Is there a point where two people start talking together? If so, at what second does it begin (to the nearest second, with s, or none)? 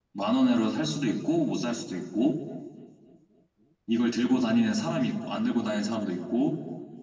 none